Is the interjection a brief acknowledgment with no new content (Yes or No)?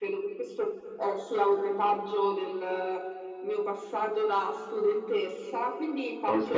Yes